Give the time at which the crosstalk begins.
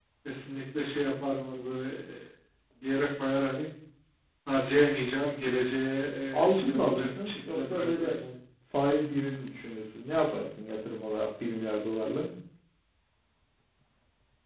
6 s

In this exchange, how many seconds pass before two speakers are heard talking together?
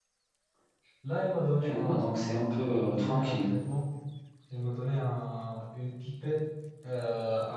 2 s

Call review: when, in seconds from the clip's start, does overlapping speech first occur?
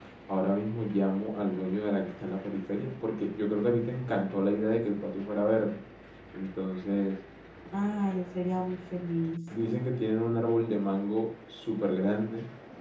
none

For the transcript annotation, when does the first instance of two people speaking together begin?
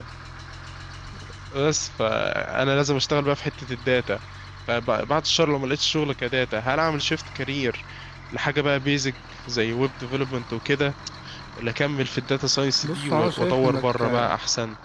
13 s

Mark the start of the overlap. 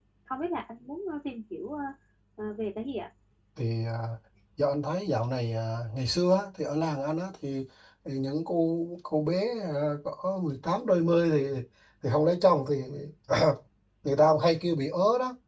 none

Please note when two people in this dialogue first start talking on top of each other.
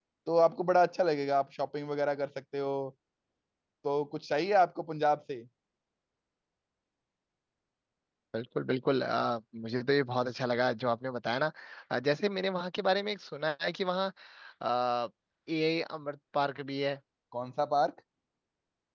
none

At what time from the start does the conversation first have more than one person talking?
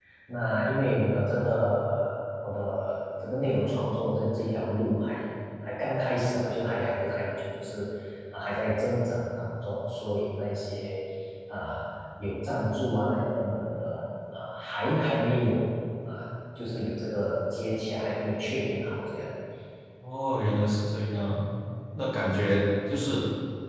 none

